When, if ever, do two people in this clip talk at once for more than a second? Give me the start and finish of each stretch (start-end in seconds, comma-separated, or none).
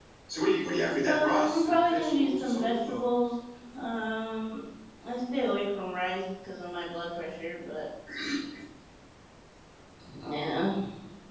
1.1-3.0